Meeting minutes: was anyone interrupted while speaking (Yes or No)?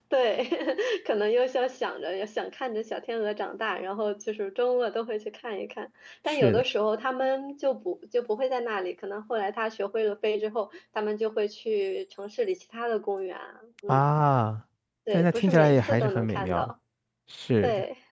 Yes